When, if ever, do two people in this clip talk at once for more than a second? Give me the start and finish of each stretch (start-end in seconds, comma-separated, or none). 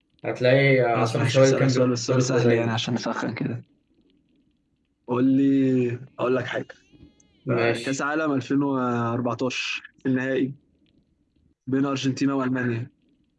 0.9-2.7